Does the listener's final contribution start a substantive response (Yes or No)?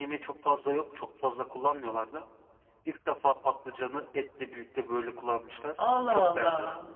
Yes